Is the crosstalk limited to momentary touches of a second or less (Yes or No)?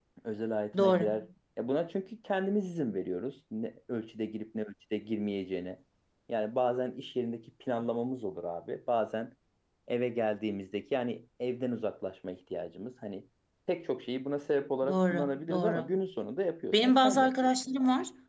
No